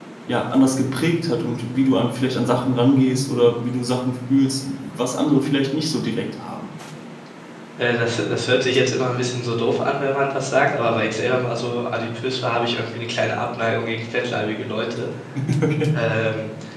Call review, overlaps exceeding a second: none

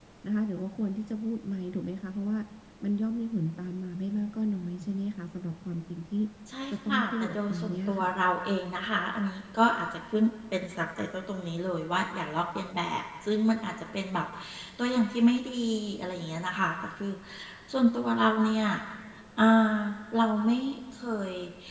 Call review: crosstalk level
present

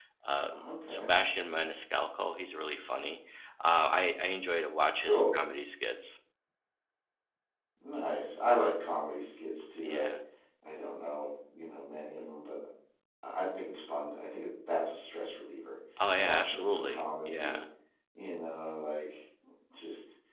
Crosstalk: present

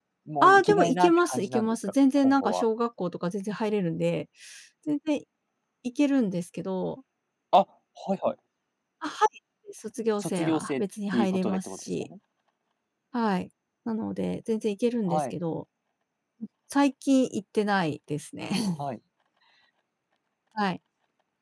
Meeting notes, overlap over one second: present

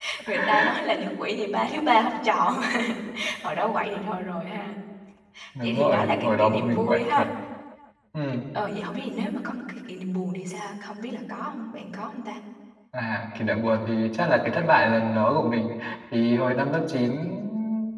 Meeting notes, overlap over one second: present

